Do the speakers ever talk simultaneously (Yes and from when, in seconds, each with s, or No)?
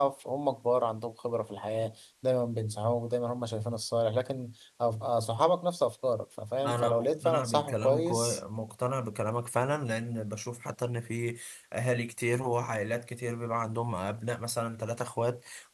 Yes, from 6.6 s